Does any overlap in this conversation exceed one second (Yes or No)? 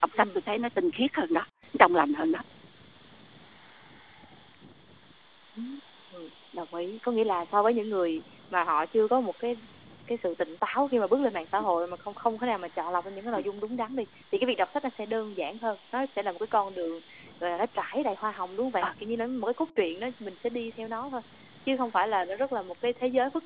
No